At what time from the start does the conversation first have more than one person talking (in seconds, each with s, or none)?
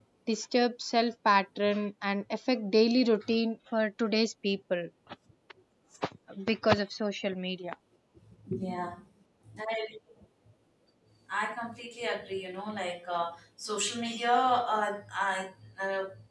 none